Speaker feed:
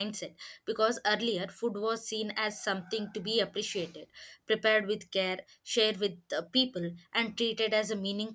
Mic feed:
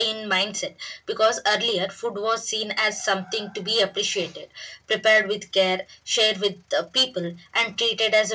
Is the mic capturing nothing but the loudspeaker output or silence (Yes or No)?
Yes